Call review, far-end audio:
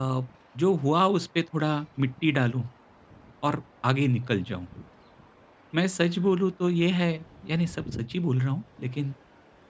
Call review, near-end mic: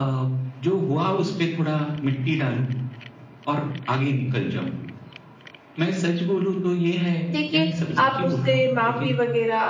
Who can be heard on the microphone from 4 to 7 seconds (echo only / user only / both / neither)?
echo only